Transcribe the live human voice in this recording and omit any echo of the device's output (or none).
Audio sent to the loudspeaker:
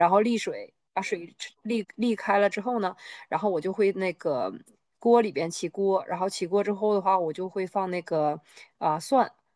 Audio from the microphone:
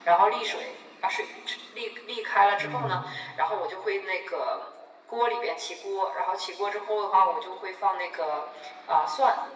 嗯，